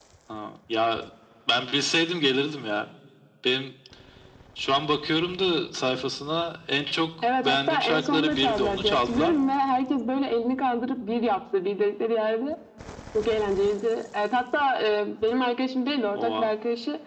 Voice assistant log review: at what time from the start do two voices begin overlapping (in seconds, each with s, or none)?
7.4 s